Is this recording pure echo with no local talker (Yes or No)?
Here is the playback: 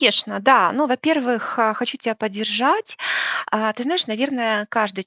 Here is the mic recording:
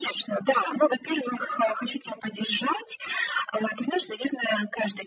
Yes